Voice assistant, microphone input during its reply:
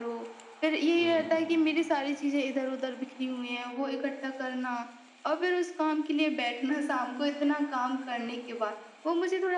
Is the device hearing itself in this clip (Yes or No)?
Yes